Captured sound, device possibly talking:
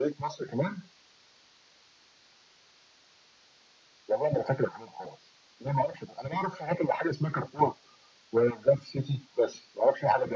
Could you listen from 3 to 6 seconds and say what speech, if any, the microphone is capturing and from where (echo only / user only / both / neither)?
echo only